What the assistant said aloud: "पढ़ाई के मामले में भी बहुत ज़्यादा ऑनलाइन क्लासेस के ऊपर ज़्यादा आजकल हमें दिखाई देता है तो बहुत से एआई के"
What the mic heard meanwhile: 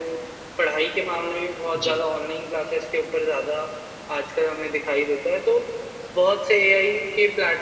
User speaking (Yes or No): Yes